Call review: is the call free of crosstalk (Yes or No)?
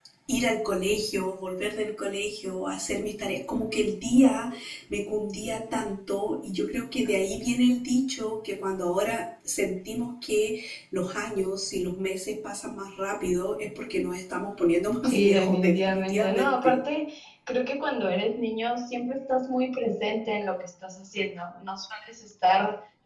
No